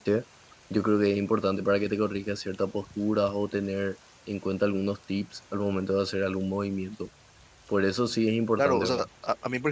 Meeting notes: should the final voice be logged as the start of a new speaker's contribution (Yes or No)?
Yes